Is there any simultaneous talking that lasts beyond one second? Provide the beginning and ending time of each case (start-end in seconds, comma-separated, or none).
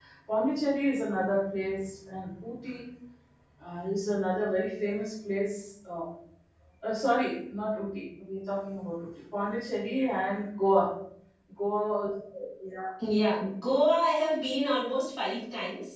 none